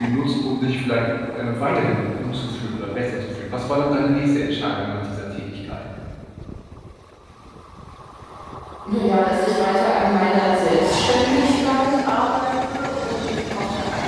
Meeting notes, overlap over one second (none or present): none